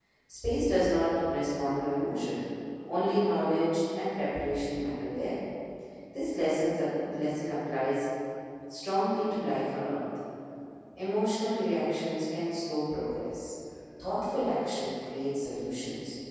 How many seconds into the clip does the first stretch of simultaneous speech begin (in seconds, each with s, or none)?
none